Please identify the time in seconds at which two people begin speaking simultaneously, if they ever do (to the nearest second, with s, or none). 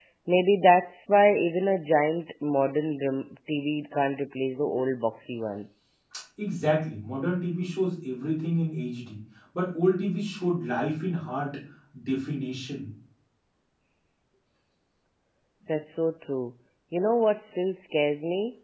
none